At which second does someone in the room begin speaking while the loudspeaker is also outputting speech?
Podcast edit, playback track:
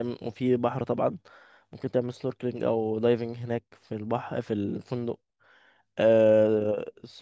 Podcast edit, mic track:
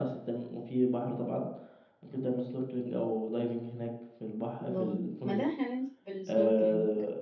4.6 s

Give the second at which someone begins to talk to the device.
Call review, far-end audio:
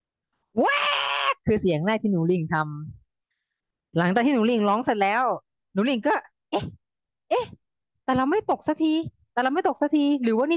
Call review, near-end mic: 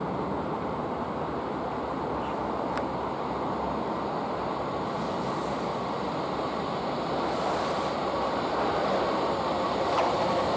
none

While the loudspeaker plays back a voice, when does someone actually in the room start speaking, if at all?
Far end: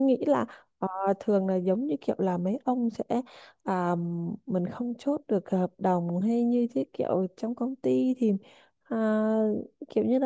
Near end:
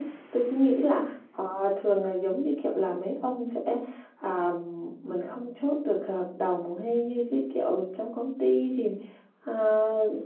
none

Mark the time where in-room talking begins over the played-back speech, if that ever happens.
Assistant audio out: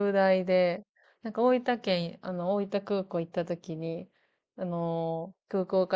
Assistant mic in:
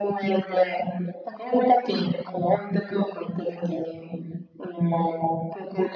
none

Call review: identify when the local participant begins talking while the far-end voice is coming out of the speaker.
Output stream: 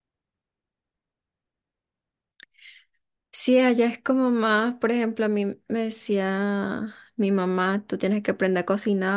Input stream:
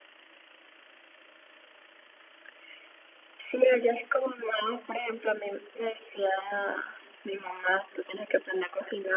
none

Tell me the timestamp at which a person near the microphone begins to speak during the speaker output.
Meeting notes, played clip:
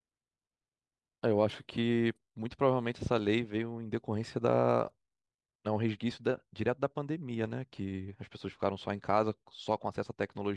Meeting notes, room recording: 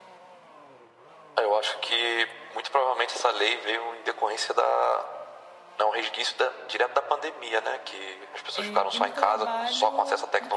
8.5 s

